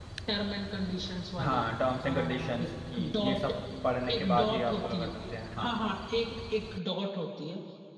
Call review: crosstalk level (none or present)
present